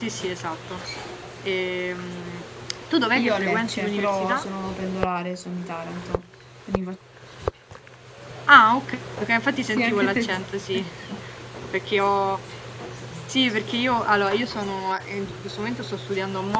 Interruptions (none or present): present